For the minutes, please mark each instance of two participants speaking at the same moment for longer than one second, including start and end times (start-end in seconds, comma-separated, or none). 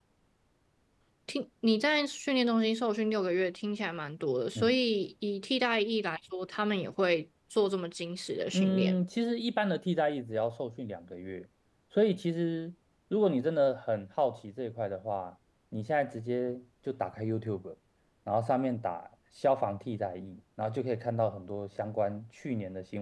none